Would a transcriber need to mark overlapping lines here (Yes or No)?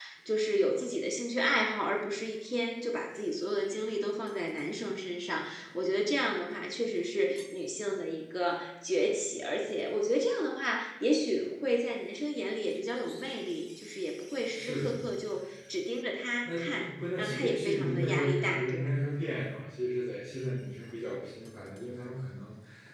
Yes